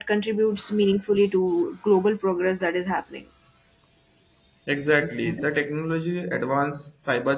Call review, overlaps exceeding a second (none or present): none